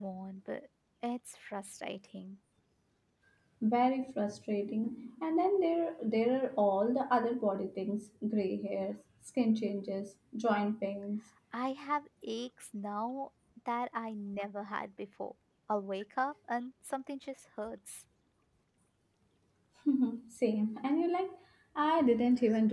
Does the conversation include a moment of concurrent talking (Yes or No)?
No